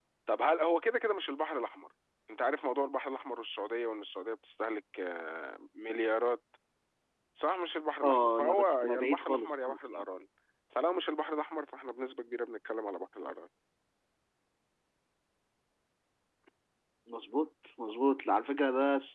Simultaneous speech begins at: 8.0 s

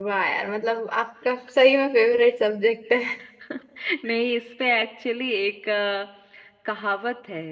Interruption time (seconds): none

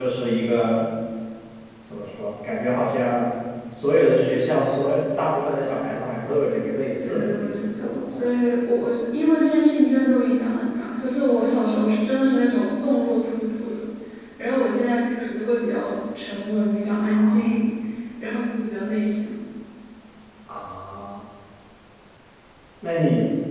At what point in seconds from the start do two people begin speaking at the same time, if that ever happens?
7.0 s

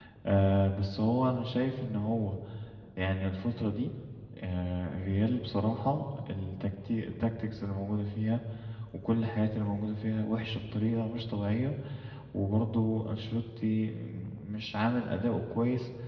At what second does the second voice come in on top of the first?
none

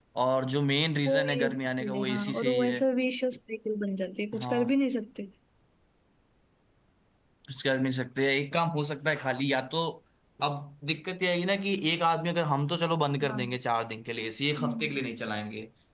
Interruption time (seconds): 1.1 s

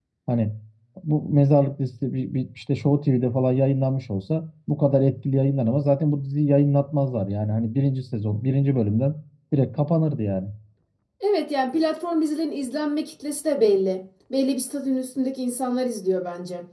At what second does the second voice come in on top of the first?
none

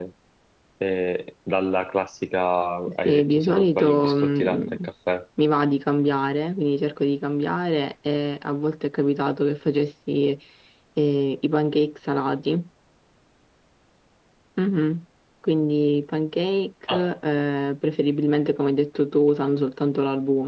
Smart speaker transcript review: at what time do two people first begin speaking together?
3.0 s

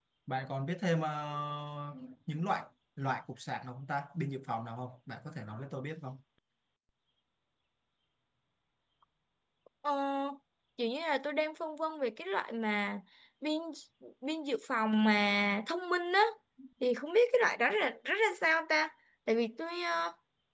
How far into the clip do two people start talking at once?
none

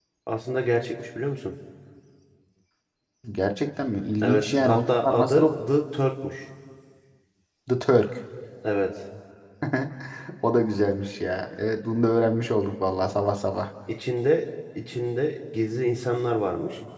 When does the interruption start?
4.2 s

